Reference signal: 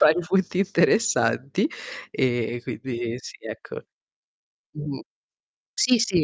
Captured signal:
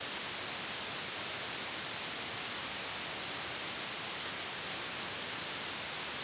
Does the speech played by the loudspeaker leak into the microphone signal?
No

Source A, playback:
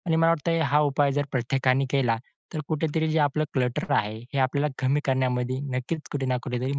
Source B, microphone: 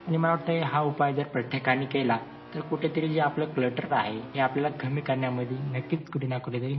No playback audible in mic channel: No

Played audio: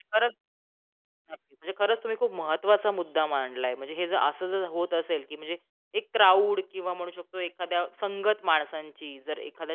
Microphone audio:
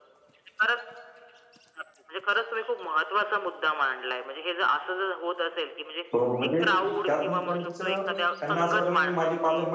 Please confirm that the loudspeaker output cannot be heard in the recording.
No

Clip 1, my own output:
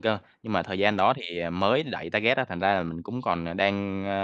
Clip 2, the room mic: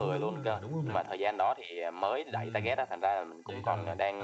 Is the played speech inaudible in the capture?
No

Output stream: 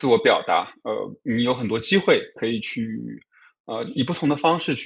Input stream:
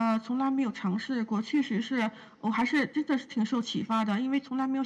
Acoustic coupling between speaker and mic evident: No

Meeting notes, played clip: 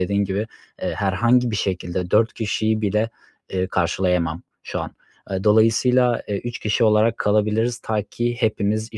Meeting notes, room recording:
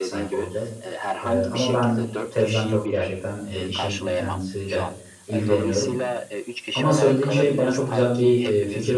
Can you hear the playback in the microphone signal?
Yes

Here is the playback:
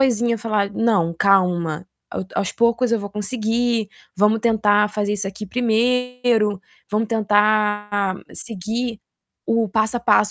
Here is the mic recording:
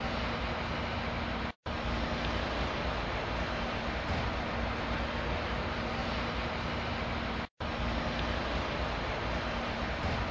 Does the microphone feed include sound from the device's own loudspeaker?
No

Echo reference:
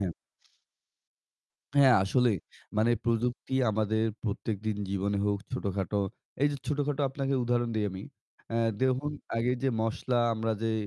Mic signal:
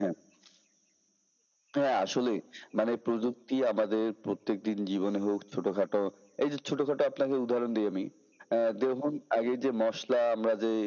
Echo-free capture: No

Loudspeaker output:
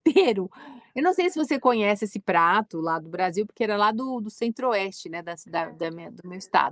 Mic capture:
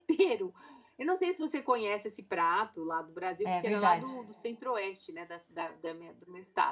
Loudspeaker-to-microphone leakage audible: Yes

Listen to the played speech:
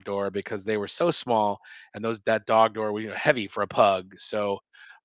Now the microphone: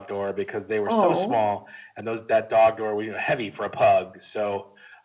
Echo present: Yes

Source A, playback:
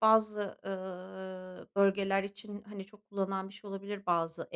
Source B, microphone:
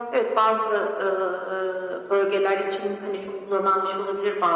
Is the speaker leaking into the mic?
Yes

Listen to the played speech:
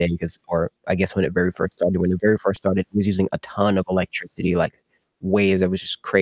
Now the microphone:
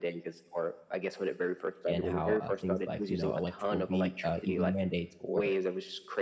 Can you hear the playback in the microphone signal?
Yes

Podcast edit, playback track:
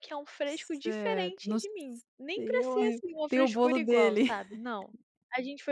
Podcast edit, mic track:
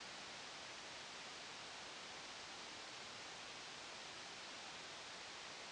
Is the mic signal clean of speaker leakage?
Yes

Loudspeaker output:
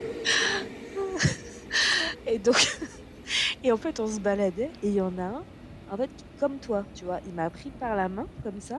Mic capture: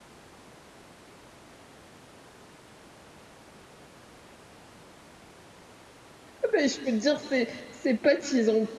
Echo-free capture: Yes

